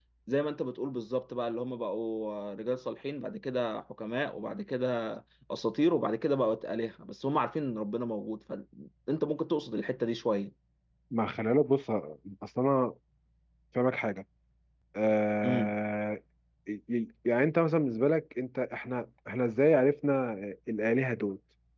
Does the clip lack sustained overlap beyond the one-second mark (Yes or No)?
Yes